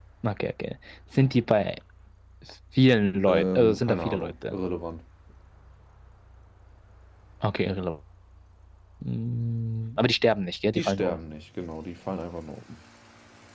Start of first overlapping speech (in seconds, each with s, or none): 3.3 s